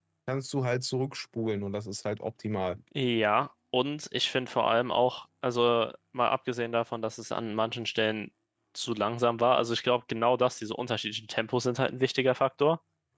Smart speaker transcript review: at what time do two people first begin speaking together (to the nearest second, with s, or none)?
none